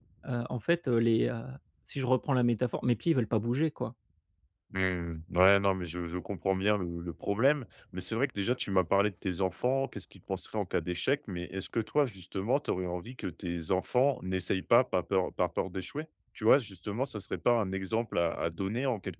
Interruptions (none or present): none